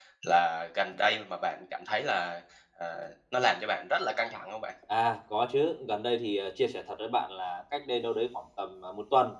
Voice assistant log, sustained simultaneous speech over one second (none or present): none